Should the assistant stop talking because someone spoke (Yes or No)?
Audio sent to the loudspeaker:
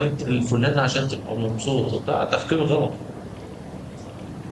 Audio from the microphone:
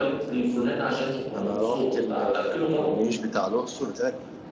Yes